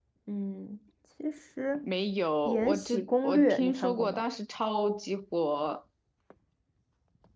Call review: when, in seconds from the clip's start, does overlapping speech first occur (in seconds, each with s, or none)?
2.5 s